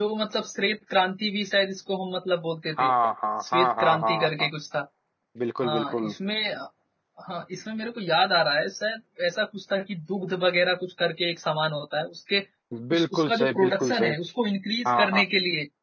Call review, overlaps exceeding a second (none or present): present